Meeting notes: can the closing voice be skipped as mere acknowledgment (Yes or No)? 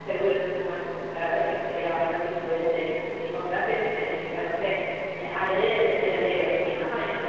No